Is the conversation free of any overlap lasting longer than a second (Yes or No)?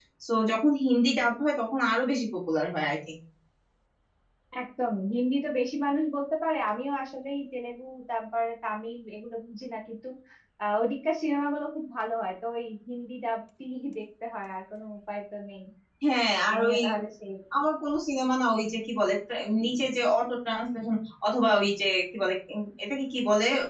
Yes